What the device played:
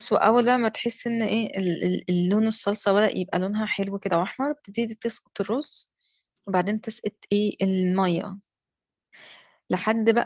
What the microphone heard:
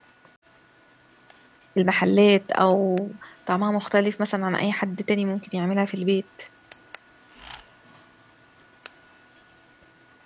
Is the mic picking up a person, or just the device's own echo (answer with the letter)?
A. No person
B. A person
B